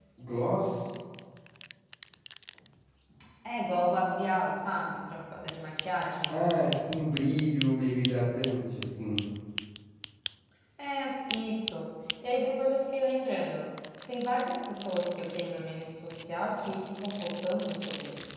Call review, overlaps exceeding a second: none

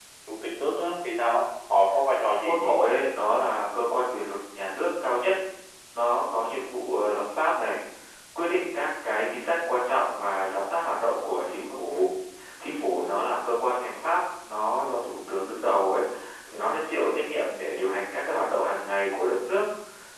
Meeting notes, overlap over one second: none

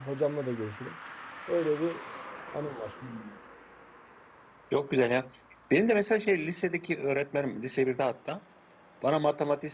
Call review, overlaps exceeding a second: none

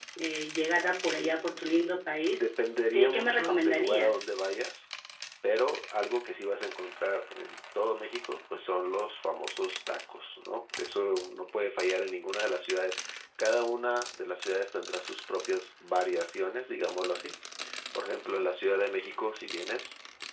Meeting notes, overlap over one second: present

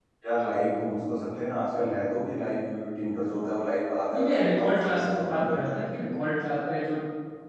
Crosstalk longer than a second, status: present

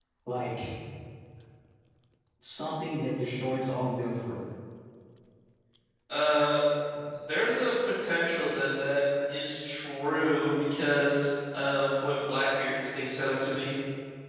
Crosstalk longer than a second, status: none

